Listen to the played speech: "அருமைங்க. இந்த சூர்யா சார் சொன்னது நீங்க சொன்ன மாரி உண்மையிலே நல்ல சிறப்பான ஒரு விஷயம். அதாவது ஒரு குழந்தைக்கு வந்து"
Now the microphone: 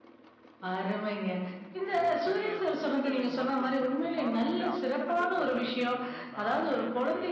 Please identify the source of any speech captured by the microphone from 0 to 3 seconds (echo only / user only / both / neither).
both